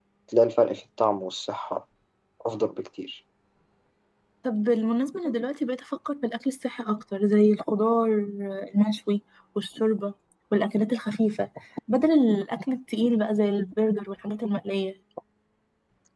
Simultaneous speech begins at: none

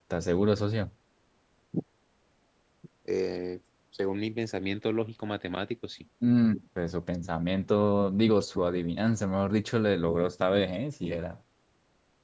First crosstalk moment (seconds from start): none

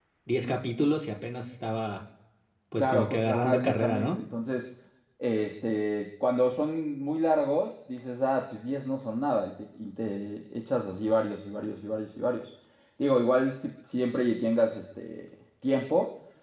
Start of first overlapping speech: 2.8 s

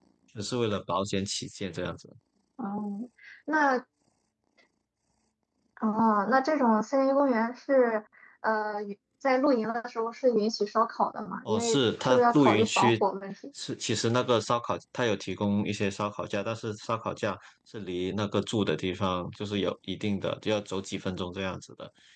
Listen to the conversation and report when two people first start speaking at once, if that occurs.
11.4 s

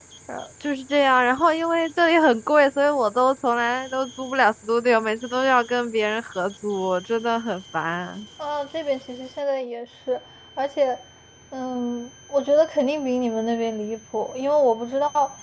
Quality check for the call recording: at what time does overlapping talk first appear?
none

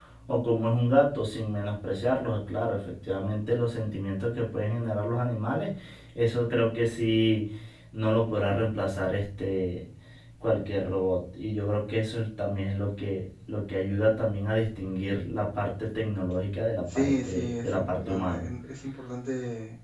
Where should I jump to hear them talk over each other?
16.9 s

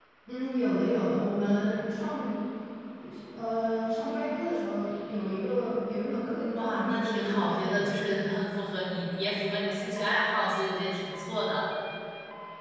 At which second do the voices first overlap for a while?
6.5 s

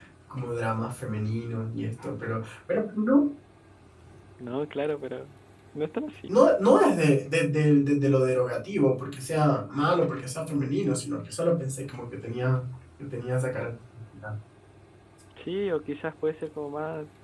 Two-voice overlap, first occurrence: none

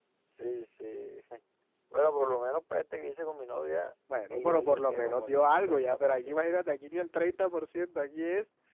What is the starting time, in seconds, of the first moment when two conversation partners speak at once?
4.1 s

